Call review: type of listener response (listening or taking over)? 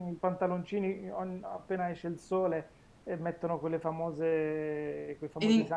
listening